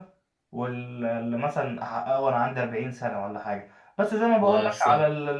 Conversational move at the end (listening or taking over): listening